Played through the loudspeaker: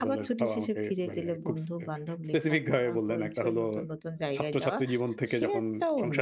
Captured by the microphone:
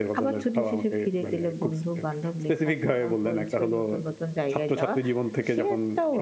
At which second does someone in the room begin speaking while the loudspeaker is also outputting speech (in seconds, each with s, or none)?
none